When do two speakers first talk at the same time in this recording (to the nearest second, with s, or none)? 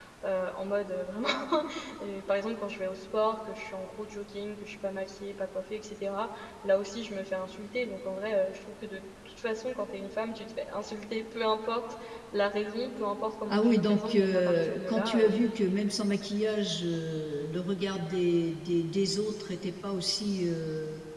13 s